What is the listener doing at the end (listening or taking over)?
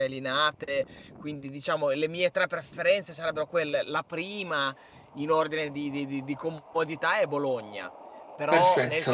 listening